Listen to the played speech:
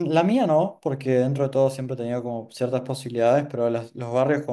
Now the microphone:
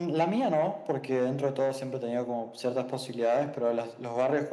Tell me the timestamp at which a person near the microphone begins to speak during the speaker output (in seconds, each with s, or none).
none